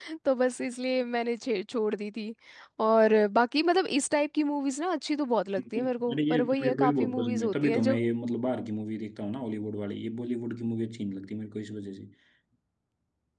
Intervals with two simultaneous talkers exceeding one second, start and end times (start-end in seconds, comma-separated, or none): 5.6-8.0